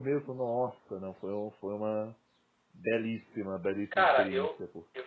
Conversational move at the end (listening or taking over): taking over